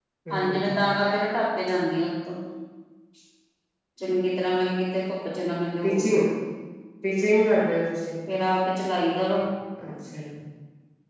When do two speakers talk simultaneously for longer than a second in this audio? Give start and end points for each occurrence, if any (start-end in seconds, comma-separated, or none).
none